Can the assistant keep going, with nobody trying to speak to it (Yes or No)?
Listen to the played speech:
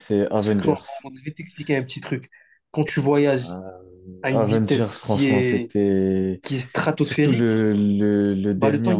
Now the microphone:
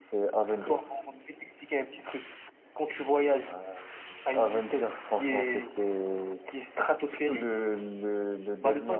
Yes